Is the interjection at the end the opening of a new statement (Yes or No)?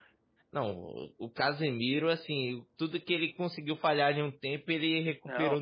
Yes